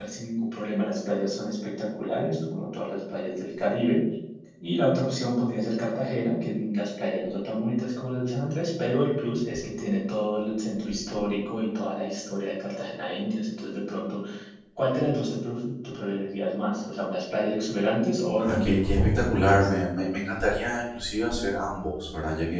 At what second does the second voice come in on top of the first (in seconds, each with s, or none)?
18.4 s